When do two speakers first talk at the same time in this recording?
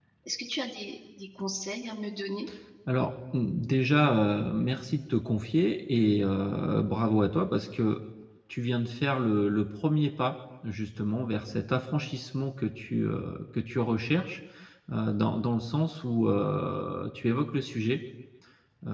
none

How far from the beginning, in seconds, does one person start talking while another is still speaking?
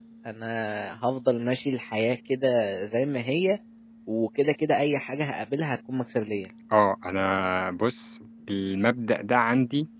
none

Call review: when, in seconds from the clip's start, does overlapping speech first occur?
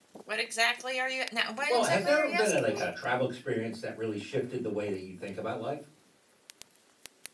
1.7 s

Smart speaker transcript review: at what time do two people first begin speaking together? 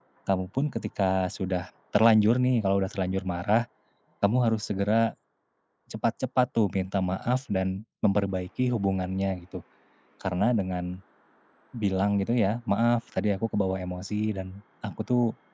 none

